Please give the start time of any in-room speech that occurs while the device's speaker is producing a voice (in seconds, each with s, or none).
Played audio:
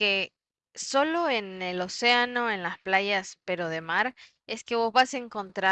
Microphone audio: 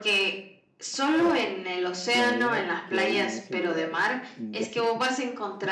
0.9 s